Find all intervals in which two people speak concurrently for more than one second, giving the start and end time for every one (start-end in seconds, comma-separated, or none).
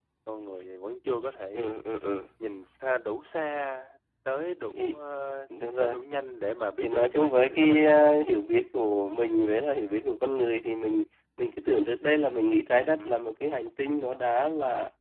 6.8-8.0